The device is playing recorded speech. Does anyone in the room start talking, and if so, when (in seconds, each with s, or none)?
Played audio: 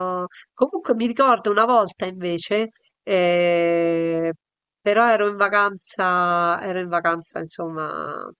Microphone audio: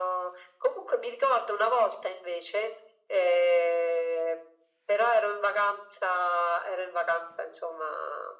none